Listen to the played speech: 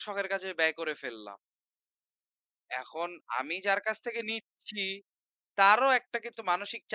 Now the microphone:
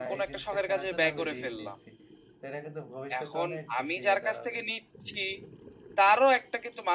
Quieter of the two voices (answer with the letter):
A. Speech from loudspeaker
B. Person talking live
B